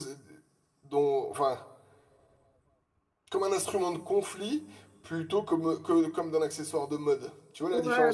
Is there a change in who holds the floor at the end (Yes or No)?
Yes